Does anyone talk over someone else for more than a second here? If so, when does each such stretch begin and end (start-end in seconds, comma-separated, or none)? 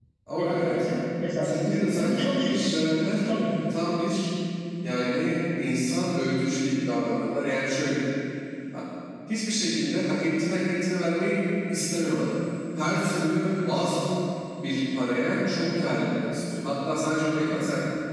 1.4-2.7